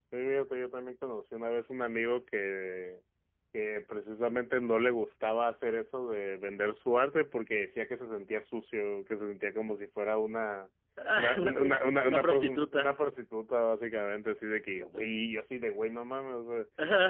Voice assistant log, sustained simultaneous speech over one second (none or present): present